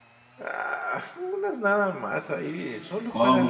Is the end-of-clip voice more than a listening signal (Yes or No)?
Yes